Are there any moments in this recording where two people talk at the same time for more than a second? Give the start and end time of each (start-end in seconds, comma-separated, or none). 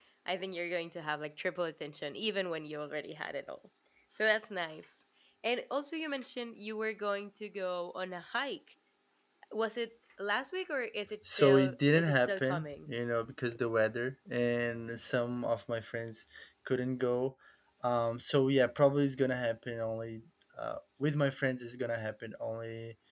11.2-12.9